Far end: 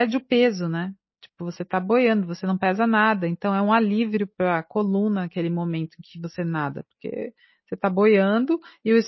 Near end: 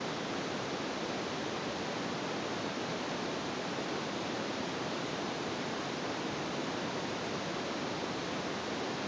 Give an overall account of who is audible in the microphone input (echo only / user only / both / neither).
neither